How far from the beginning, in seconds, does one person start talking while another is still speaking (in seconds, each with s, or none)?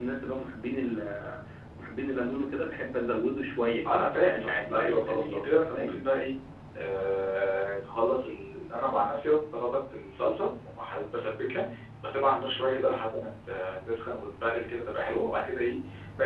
3.9 s